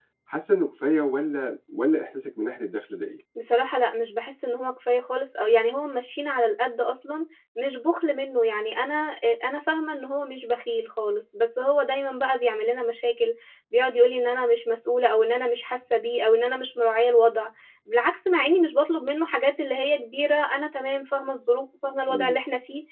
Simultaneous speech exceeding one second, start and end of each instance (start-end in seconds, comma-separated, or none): none